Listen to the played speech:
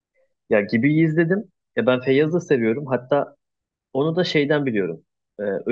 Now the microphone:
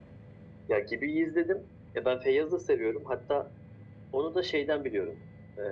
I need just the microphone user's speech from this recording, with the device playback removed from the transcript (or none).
none